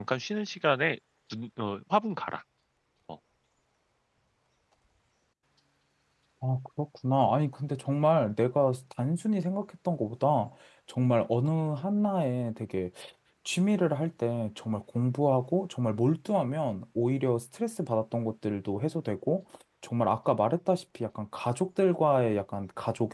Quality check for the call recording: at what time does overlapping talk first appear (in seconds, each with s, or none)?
none